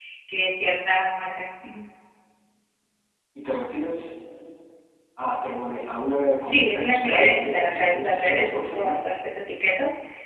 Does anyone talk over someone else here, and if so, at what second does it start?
6.4 s

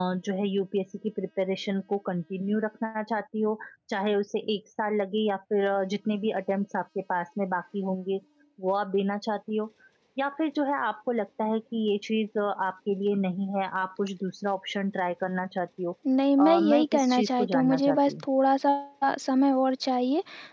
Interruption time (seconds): 16.4 s

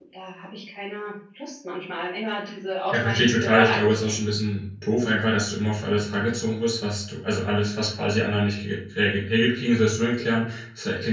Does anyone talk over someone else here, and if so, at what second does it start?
2.9 s

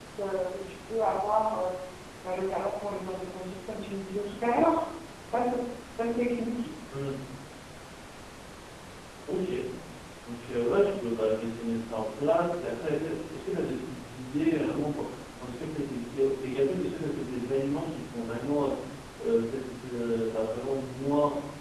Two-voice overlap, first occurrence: none

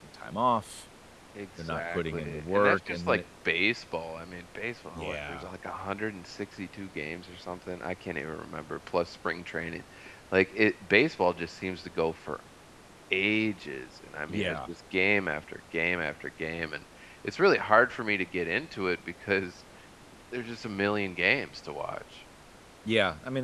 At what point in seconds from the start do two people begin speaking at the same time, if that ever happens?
1.6 s

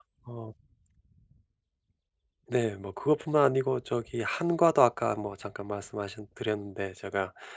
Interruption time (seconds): none

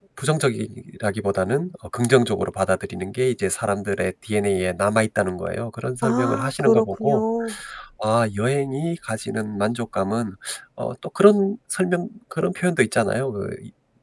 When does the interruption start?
6.0 s

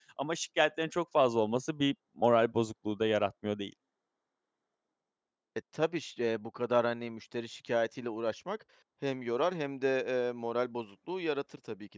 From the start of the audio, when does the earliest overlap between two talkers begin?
none

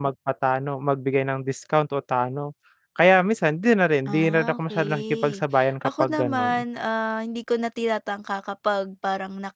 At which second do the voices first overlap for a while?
4.1 s

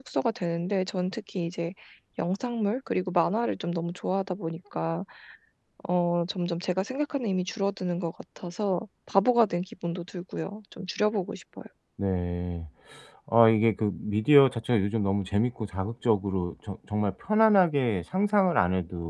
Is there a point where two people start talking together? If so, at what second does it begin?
none

